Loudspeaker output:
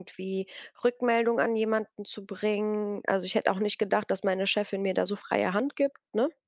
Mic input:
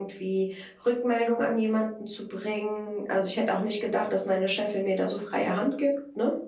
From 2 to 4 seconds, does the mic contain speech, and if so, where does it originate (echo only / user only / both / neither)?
echo only